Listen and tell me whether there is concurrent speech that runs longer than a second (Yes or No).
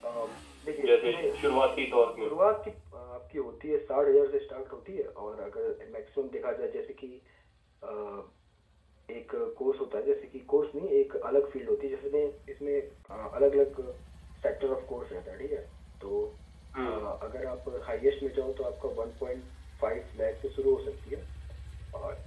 No